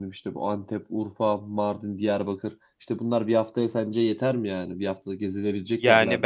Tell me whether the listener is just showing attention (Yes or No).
No